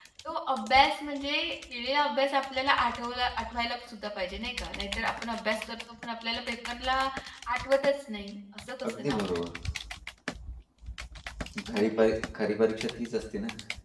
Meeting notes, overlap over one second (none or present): none